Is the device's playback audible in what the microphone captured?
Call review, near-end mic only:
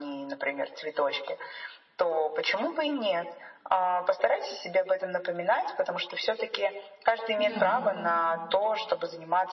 Yes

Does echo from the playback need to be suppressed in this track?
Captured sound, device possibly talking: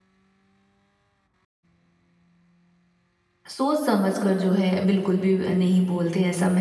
No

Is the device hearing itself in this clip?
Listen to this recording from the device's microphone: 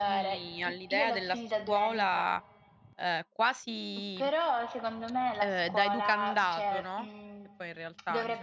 Yes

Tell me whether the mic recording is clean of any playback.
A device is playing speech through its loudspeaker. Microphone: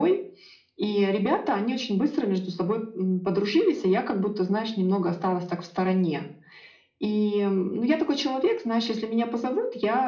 No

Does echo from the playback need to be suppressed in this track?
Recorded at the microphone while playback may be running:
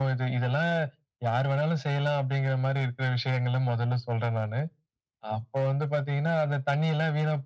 Yes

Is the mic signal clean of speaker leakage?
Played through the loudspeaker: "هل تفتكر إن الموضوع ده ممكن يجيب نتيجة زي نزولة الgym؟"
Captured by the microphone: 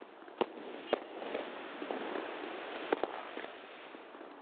Yes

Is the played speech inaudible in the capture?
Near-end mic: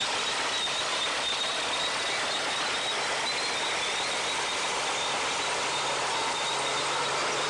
Yes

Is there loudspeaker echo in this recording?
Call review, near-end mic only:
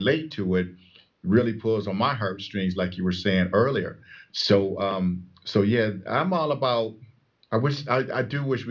No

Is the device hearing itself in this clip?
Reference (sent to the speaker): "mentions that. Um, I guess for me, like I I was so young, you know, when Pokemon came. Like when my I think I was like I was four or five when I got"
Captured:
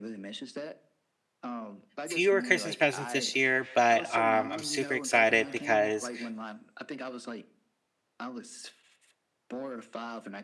Yes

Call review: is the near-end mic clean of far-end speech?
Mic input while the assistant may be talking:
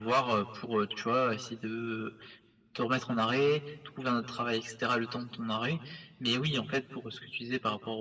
No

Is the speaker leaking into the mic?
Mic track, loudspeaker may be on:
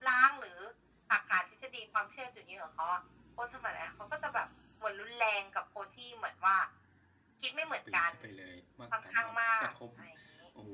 Yes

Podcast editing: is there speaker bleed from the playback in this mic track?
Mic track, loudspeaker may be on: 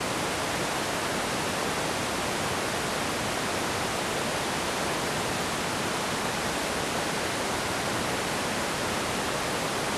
No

